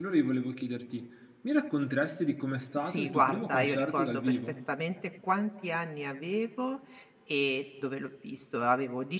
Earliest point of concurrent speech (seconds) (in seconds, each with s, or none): 2.8 s